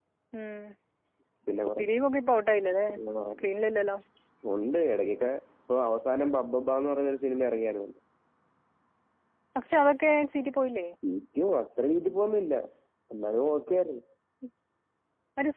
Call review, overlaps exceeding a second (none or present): none